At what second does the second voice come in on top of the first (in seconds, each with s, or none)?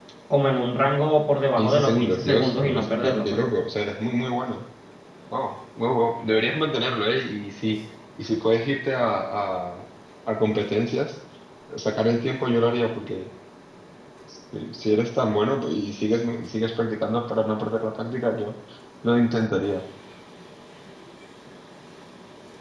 1.6 s